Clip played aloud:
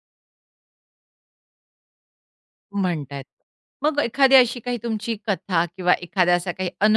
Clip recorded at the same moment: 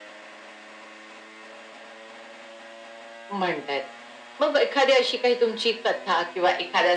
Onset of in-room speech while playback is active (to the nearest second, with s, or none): none